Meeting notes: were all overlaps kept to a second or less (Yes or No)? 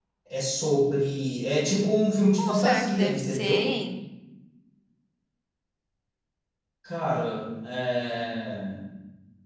No